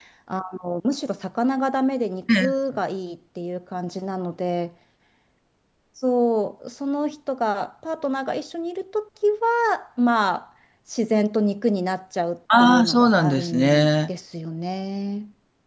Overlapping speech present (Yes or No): Yes